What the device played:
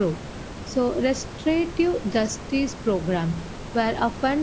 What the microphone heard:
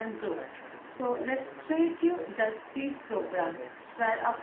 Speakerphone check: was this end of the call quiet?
No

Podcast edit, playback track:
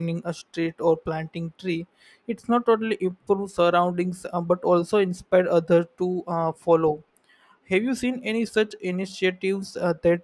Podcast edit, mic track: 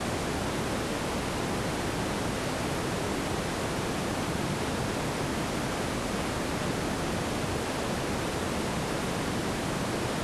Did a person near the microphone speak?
No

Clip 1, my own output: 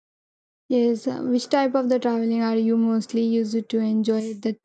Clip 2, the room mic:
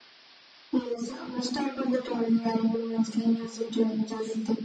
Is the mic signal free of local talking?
Yes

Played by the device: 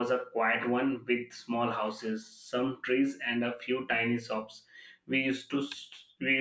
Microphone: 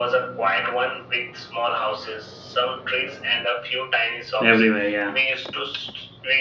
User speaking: Yes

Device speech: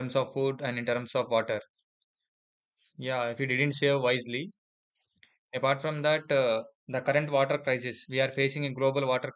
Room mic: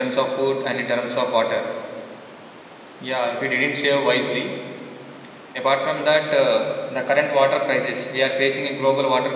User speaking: No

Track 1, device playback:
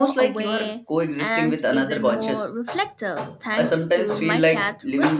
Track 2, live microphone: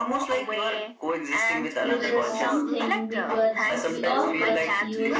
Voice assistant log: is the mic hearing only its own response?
No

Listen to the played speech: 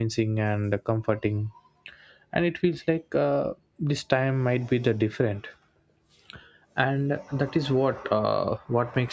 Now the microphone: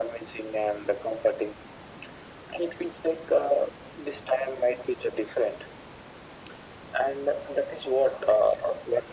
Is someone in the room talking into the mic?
No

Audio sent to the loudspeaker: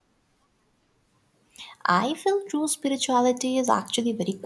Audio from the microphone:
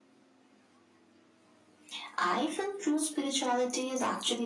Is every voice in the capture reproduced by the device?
Yes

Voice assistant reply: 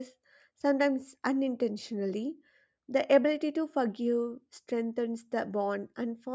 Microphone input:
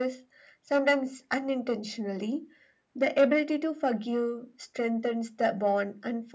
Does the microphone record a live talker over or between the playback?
No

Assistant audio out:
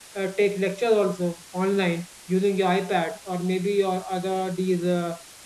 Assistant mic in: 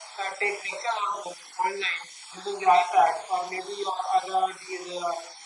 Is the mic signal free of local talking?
Yes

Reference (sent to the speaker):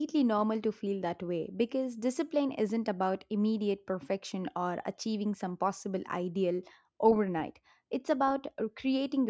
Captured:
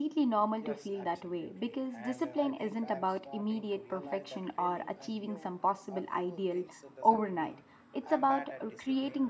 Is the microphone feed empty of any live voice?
No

